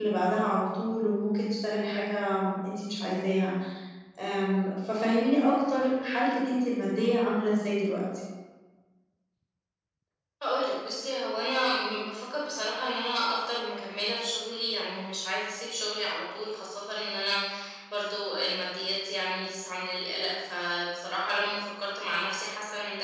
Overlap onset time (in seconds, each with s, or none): none